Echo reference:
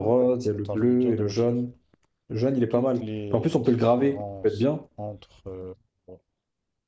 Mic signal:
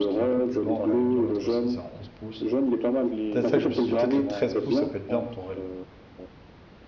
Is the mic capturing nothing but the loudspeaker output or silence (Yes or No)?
No